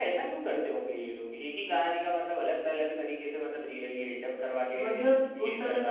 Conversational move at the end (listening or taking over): taking over